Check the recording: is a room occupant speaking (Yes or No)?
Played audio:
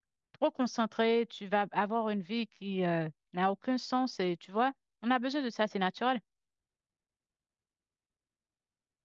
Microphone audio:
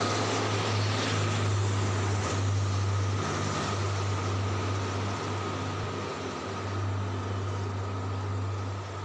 No